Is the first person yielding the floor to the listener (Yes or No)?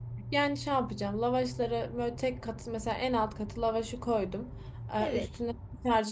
No